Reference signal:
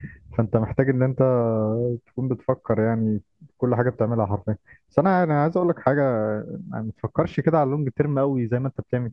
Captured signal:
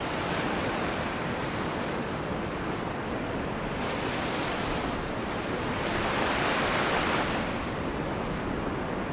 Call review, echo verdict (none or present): none